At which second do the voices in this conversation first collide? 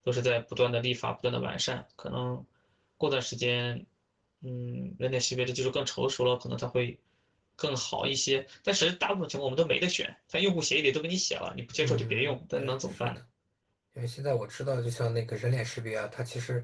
11.8 s

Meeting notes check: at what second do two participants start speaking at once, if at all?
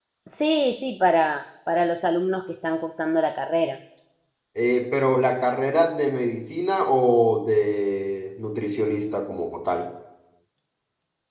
none

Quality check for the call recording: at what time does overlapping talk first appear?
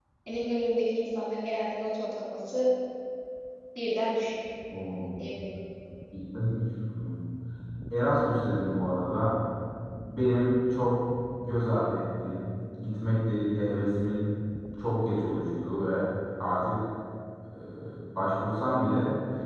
none

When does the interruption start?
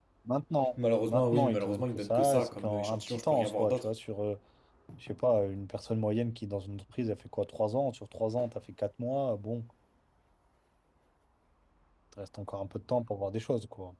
0.8 s

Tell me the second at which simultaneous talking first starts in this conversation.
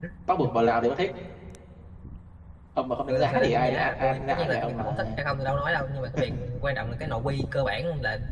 3.1 s

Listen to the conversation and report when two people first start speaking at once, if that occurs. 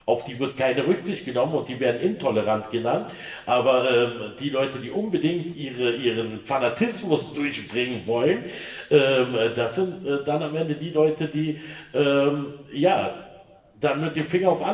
none

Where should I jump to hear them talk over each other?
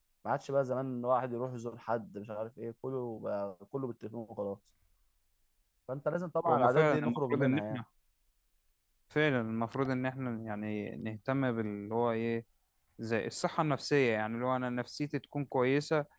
6.5 s

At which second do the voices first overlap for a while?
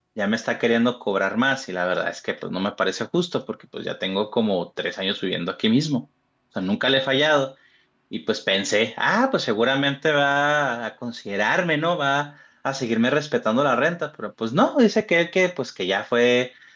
none

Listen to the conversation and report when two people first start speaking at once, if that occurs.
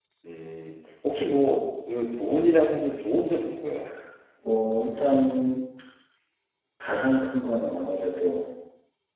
none

